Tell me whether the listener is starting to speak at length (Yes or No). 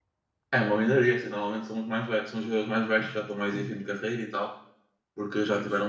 No